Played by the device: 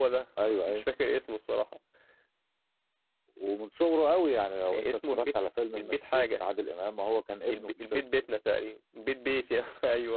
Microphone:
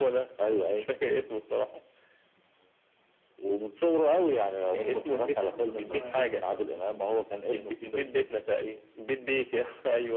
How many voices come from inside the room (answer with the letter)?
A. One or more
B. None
A